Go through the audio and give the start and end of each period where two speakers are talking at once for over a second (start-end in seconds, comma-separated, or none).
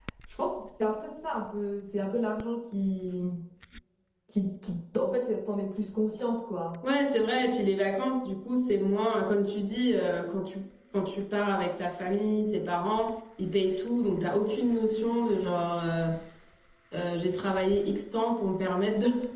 none